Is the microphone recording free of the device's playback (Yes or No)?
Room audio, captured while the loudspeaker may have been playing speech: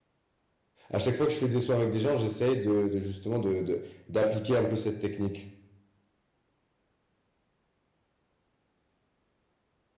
Yes